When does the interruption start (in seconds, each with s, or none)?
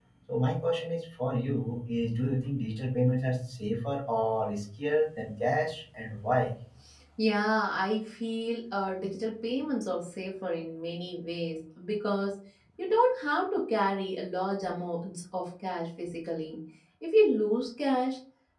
none